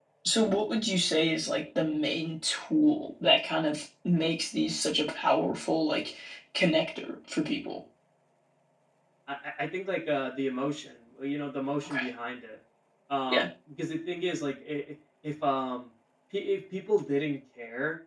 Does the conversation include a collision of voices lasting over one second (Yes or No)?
No